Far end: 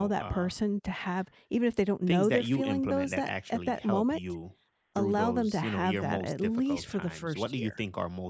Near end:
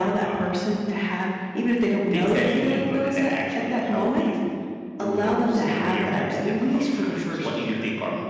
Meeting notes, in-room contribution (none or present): none